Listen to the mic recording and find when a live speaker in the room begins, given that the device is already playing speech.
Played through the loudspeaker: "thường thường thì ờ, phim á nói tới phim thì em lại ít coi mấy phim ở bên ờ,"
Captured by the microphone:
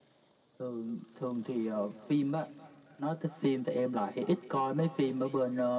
none

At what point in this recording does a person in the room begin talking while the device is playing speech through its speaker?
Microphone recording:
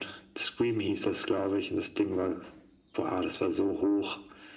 none

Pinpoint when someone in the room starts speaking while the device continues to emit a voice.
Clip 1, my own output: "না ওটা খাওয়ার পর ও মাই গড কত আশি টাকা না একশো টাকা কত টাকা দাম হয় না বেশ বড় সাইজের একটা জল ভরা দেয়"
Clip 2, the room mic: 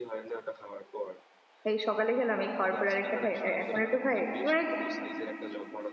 1.7 s

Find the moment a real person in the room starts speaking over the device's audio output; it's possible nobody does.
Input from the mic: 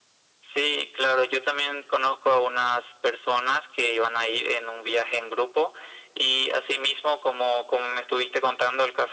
none

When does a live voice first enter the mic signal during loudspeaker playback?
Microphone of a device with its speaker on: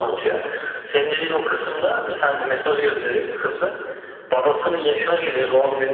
none

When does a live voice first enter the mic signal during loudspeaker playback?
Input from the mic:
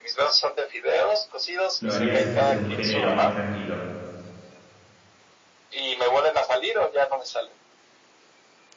1.8 s

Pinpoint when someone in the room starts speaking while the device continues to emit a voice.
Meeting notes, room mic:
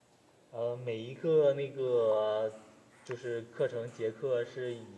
0.5 s

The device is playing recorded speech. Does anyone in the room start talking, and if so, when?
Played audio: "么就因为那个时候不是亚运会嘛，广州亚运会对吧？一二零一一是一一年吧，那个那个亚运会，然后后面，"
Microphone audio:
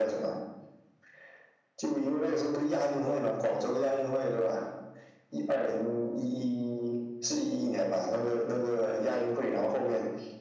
none

